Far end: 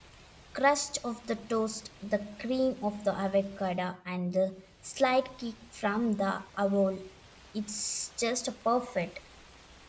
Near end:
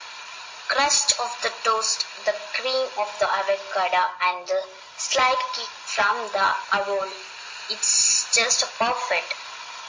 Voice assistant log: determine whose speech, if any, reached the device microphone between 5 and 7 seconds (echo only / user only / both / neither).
echo only